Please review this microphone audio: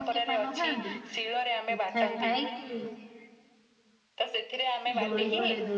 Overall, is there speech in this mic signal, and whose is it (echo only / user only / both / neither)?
both